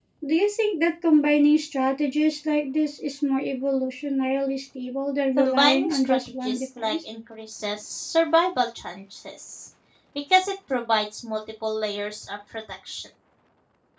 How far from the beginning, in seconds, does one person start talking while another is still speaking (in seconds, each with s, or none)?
5.4 s